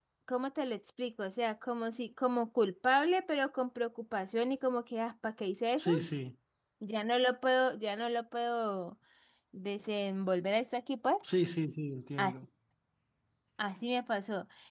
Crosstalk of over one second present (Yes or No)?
No